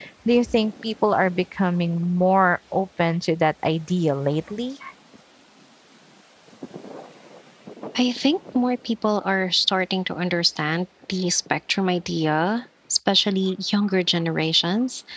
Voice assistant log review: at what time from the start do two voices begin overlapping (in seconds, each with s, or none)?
none